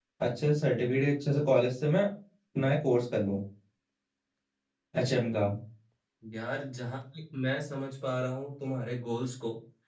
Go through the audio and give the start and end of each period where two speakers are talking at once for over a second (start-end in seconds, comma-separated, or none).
none